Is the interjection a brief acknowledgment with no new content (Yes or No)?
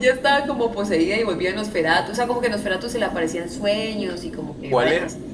No